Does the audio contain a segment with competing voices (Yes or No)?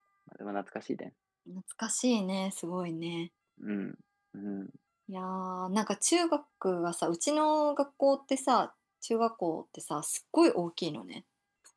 No